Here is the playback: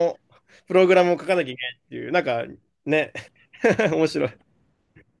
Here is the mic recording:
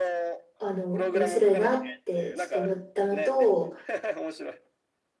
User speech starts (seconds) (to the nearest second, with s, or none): 1 s